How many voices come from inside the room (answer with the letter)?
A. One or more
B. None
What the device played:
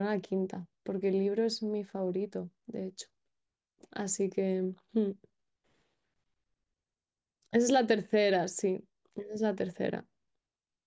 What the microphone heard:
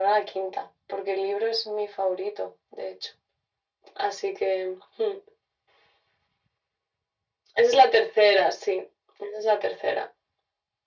B